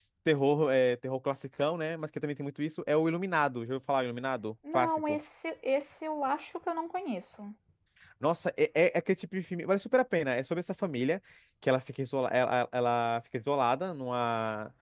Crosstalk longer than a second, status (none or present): none